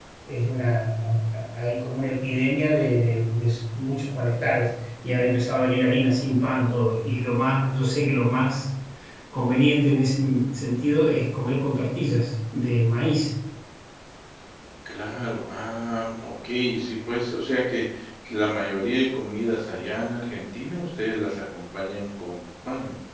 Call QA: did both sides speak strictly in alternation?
Yes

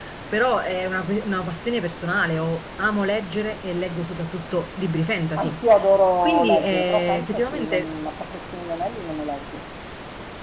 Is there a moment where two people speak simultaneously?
Yes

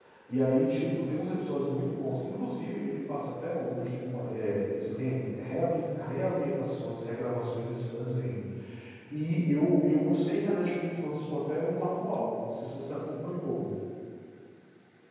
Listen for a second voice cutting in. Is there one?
No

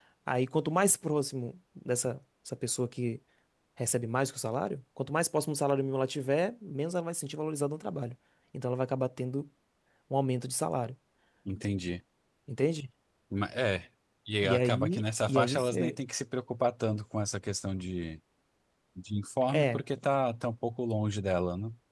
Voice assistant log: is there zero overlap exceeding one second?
No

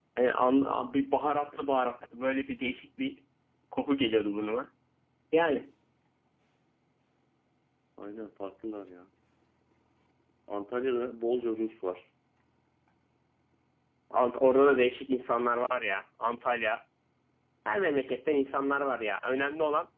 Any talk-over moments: No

